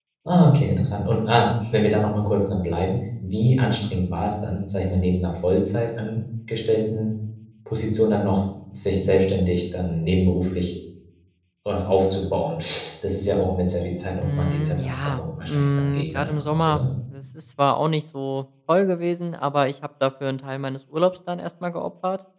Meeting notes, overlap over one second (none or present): present